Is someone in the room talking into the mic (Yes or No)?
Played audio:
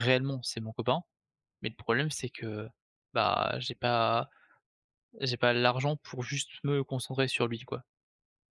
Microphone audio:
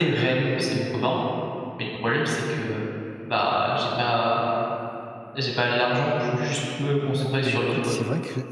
Yes